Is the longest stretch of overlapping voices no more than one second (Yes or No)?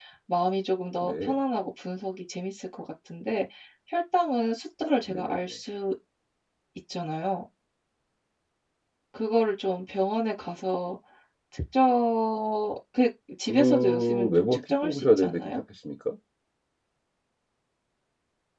No